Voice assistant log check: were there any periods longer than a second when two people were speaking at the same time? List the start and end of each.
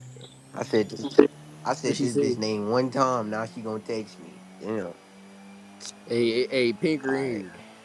none

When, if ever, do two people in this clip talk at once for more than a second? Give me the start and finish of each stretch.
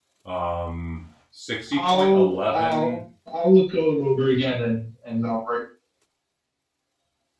1.7-3.0

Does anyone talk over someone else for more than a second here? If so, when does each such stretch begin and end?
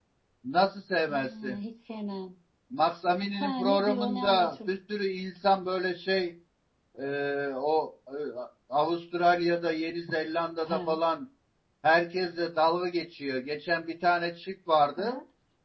3.3-4.7

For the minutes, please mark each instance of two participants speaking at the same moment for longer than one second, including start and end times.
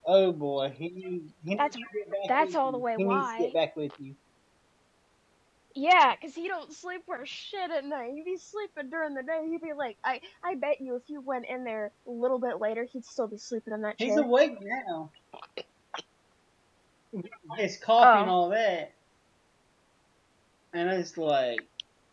2.3-3.5

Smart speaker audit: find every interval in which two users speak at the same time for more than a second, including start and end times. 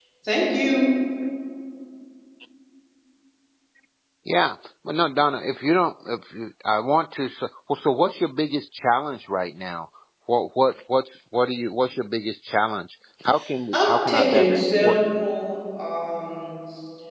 13.7-15.1

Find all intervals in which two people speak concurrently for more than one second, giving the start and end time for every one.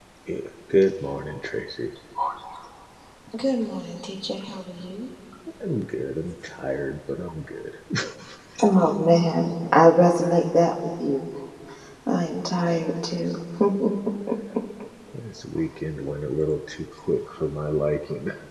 none

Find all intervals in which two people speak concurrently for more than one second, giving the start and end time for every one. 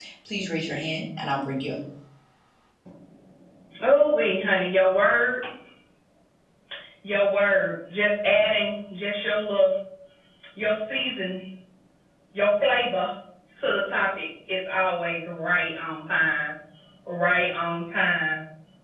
none

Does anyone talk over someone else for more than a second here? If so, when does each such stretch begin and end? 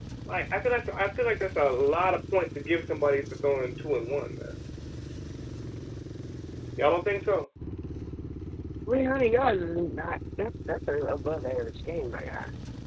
none

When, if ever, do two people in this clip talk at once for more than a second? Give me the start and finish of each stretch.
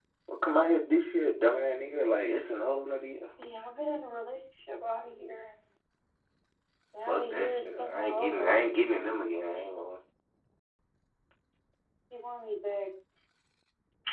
7.0-8.7

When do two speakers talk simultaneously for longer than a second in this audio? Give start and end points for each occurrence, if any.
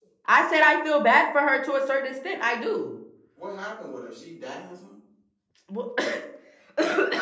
none

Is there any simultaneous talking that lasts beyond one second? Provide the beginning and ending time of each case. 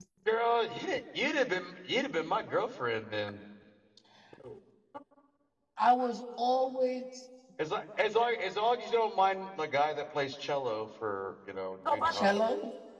none

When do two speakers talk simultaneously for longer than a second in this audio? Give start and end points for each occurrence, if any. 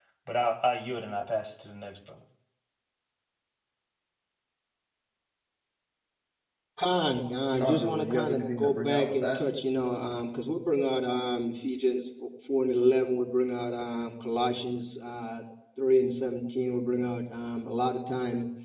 7.6-9.4

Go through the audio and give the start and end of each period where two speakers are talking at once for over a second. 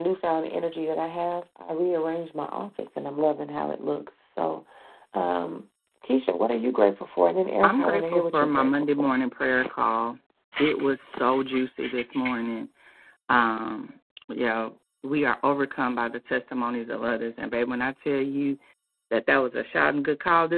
7.6-9.1

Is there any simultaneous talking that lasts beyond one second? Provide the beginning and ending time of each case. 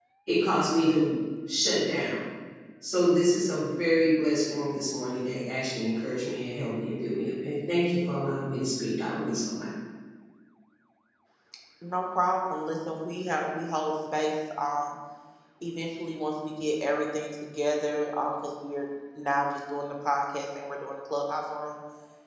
none

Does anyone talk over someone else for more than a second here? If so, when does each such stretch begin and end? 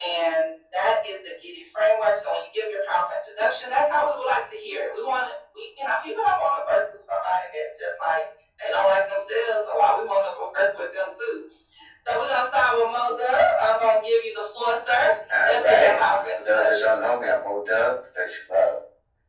15.4-16.9

